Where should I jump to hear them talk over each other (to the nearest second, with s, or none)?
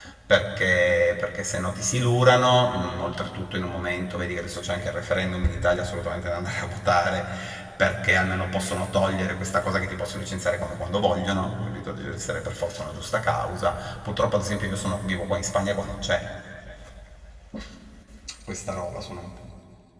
none